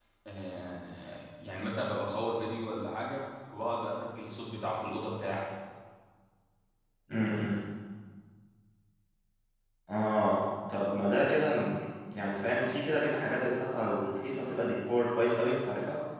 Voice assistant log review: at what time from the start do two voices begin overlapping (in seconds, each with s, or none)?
none